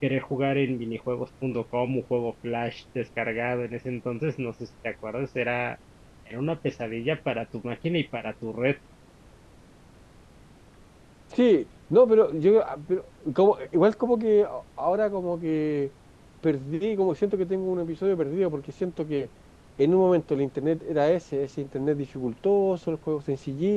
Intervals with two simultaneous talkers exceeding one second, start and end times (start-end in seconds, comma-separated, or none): none